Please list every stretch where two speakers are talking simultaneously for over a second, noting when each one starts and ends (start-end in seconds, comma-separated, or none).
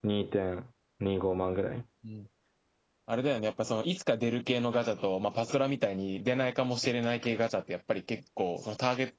none